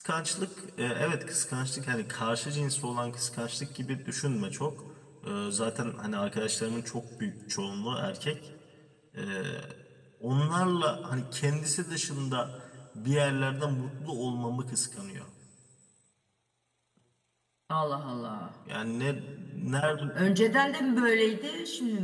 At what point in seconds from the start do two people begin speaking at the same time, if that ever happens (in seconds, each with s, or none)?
none